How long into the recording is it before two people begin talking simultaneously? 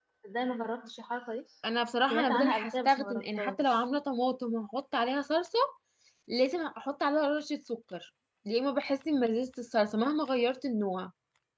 2.1 s

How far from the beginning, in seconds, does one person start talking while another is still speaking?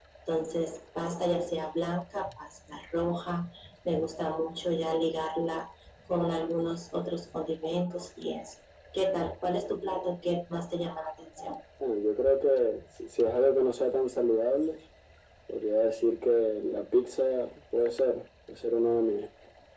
none

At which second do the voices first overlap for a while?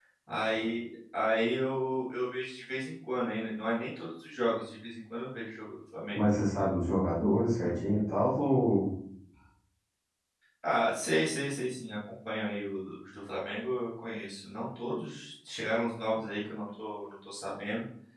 none

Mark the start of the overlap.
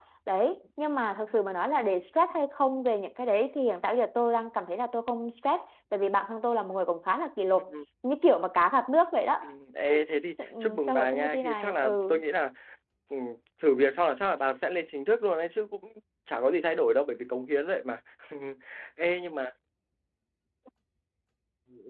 10.6 s

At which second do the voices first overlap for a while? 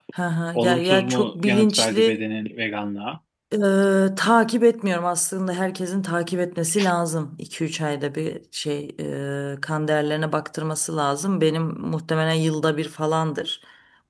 0.6 s

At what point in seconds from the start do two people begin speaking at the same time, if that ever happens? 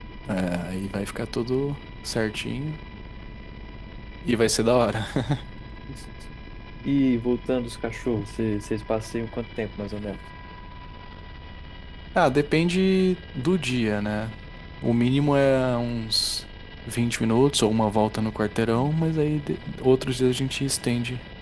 none

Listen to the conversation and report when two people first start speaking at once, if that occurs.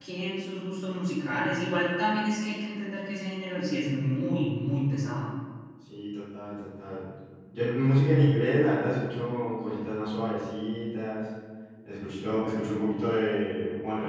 none

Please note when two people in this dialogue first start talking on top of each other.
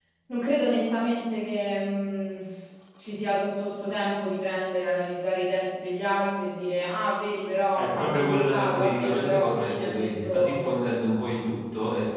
7.8 s

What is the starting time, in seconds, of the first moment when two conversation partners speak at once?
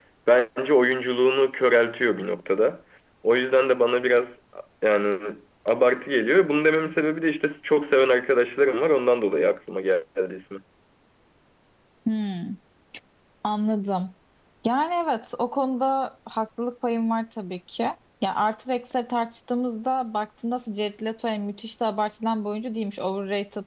none

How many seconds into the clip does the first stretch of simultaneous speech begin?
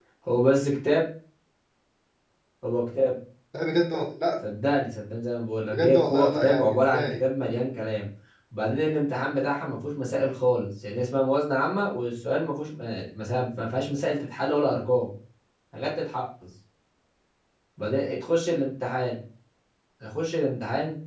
5.7 s

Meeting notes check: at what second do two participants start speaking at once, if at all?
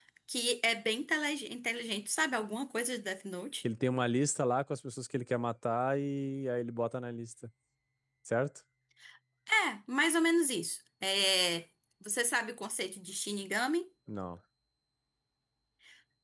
none

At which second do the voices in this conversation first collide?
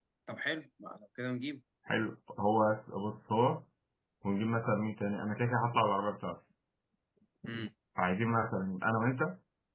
none

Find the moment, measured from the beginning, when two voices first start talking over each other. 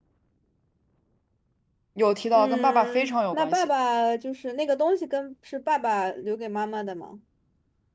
2.3 s

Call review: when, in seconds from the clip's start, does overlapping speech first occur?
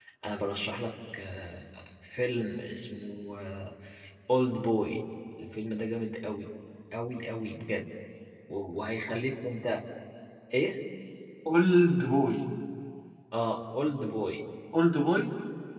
none

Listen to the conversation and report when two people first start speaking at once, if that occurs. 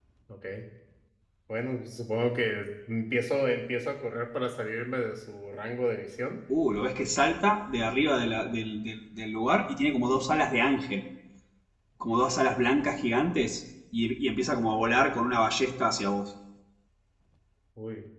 none

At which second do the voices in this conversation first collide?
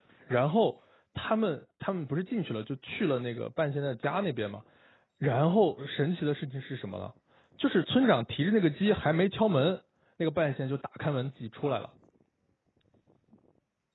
none

